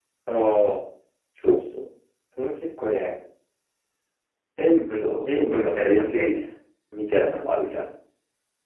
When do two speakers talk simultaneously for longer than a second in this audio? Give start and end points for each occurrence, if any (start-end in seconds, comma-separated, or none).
4.9-6.4